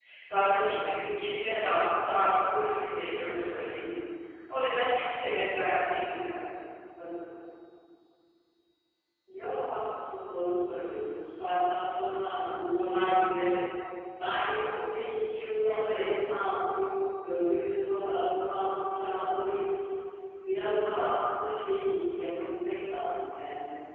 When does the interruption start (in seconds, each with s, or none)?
none